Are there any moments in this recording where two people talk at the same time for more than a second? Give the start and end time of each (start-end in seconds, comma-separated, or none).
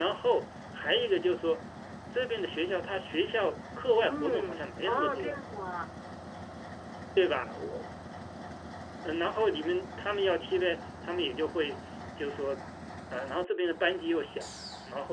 4.0-5.3